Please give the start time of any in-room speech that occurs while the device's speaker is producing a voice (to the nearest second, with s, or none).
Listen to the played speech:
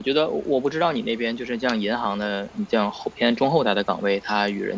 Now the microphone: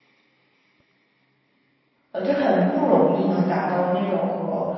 2 s